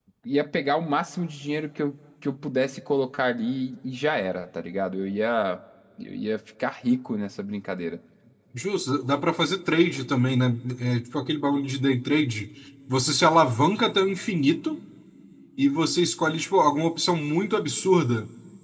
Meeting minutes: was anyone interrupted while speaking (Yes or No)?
No